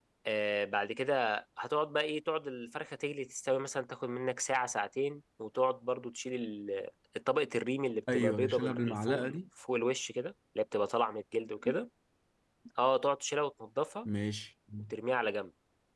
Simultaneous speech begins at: 8.1 s

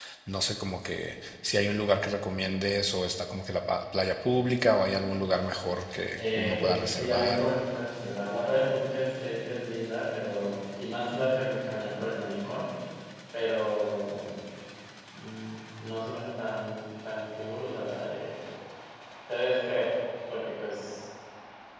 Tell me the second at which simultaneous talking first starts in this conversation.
6.2 s

